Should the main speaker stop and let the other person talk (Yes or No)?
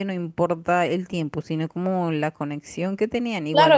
Yes